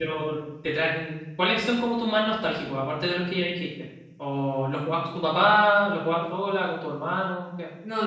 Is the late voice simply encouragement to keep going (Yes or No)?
No